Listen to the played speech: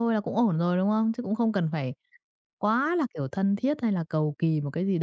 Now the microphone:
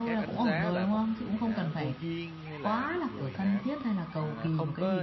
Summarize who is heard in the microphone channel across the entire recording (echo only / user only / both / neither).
both